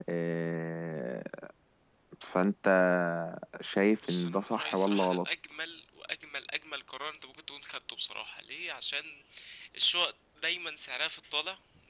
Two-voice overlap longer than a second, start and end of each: 4.0-5.2

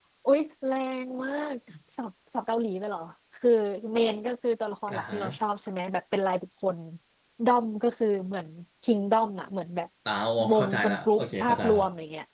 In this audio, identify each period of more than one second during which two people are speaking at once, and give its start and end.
10.5-11.8

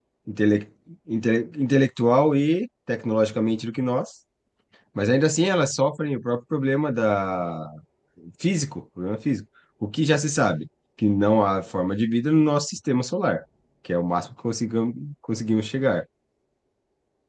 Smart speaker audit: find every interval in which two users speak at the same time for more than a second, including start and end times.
none

